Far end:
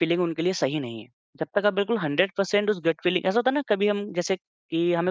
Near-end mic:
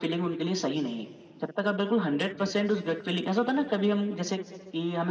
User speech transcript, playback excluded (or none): none